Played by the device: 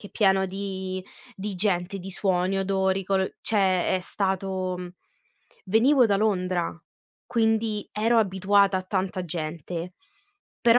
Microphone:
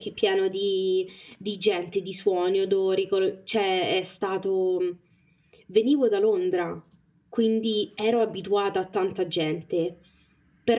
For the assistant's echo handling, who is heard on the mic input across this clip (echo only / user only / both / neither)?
echo only